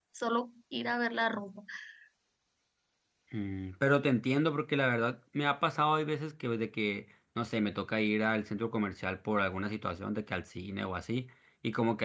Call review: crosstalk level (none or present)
none